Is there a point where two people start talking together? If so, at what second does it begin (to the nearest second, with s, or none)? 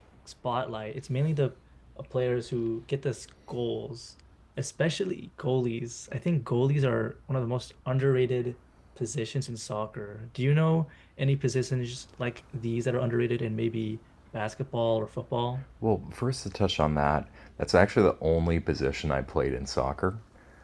none